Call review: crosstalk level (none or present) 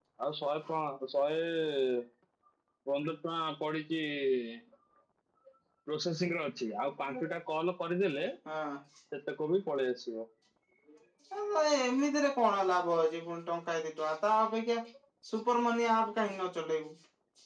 none